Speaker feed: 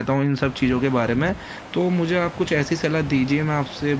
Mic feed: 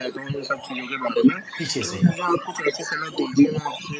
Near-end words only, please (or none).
पीछे से।